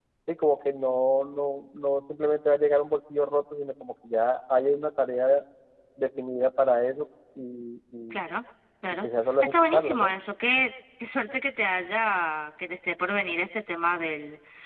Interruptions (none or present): present